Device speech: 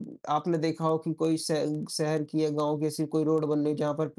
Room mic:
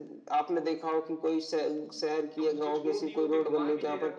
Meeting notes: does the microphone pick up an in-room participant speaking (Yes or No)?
Yes